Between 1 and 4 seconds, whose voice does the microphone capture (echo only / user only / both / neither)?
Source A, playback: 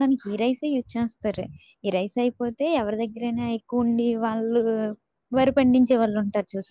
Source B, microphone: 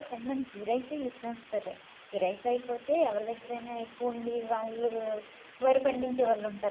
echo only